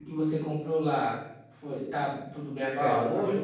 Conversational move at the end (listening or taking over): taking over